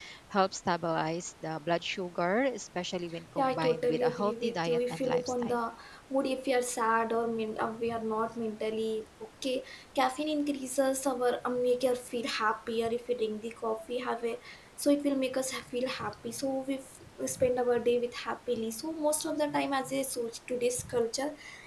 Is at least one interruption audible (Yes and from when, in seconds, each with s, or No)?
Yes, from 3.4 s